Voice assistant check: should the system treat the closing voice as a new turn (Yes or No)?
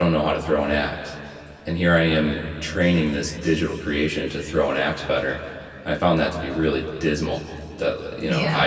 No